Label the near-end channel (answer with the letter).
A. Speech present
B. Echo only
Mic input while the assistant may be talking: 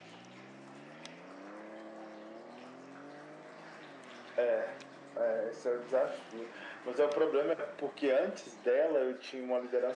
B